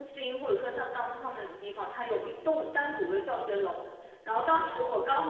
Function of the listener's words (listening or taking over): listening